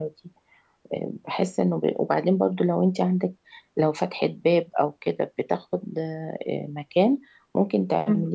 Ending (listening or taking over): listening